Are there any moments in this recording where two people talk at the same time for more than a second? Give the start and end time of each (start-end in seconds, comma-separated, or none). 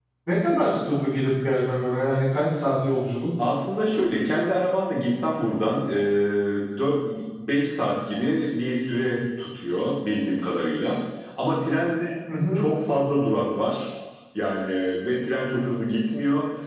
none